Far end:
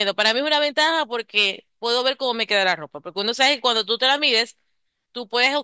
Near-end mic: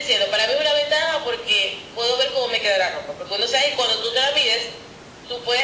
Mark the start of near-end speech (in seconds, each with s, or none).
none